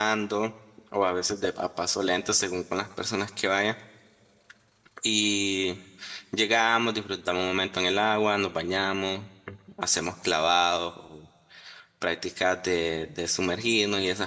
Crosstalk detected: No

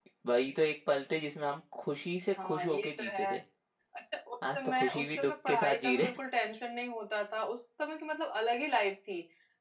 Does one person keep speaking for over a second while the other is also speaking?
Yes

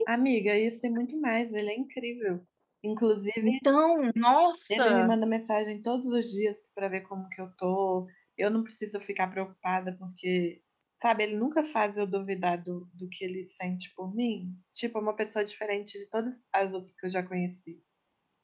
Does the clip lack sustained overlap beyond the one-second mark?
Yes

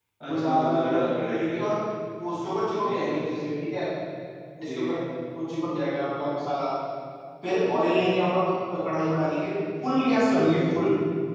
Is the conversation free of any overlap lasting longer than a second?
No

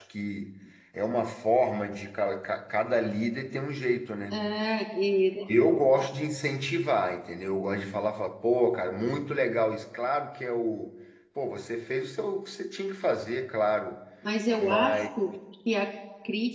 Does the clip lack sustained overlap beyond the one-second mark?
Yes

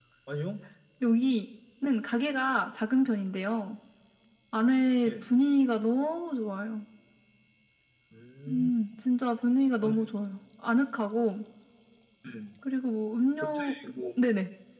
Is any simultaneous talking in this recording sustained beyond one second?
No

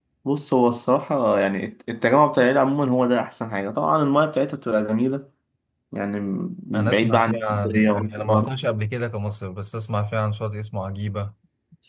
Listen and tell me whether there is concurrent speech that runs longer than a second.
Yes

